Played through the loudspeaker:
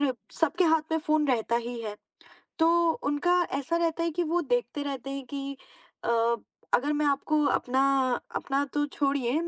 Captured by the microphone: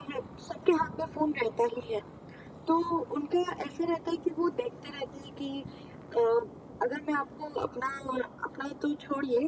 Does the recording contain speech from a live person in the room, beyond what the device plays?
No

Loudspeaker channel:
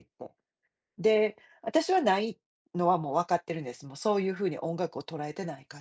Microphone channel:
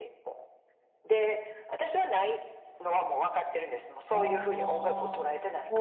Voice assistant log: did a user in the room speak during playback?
Yes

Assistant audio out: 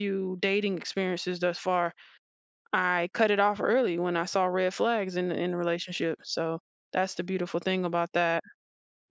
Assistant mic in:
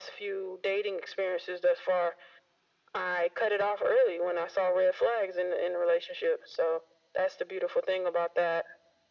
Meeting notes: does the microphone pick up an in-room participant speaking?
No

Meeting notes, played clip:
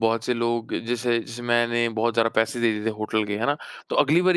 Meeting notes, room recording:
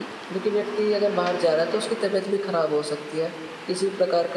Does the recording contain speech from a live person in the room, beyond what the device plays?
Yes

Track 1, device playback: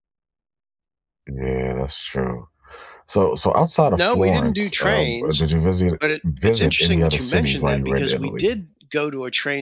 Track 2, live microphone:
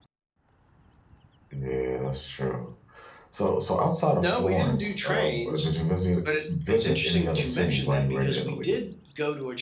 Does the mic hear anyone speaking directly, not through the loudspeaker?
No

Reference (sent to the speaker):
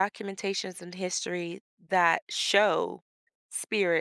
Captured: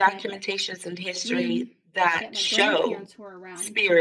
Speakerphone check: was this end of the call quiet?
No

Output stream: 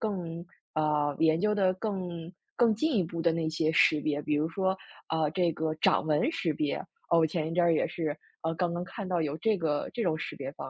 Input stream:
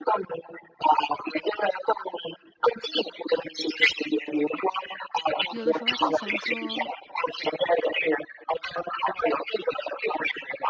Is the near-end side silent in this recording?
No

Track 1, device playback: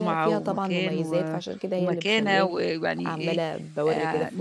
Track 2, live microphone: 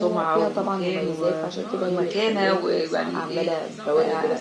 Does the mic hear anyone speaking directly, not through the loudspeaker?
Yes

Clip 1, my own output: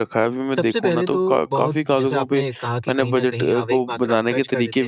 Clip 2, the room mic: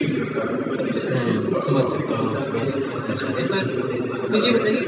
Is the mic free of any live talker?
No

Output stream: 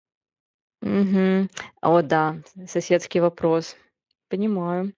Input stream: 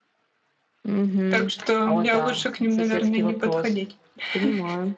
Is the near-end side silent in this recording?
No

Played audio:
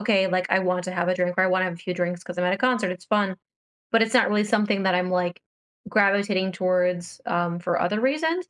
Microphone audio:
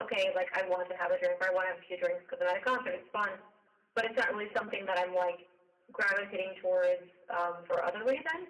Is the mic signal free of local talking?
Yes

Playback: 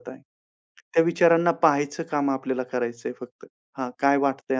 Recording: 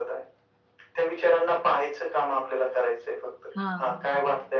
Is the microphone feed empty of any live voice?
No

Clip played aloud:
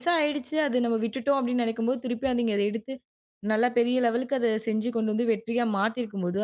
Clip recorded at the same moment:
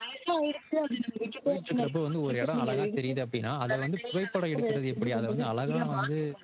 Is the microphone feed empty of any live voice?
No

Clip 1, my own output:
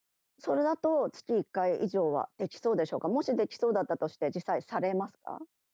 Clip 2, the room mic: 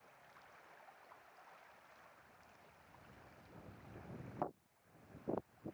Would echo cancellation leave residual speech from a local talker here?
No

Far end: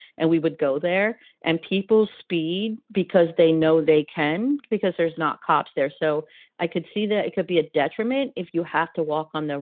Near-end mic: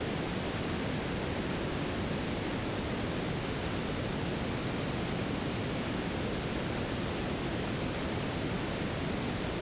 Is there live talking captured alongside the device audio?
No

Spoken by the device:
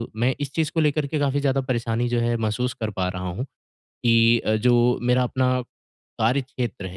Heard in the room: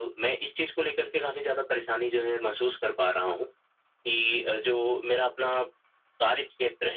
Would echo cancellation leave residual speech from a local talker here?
No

